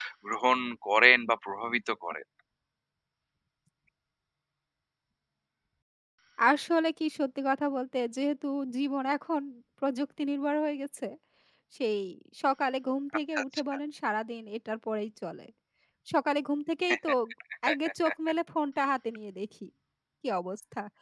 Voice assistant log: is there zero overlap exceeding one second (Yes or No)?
Yes